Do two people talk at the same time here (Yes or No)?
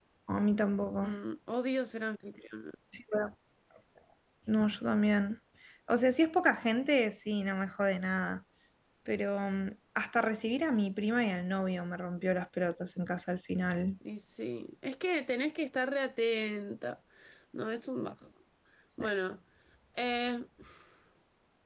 No